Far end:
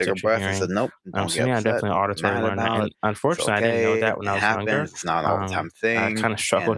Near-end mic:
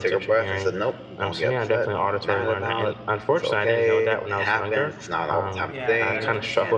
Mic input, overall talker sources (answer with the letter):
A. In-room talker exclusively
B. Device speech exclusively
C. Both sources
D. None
C